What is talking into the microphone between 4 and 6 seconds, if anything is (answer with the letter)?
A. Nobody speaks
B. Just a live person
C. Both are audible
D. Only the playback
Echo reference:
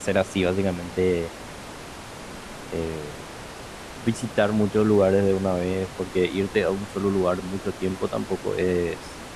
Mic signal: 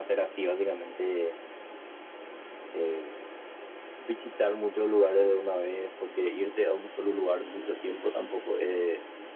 D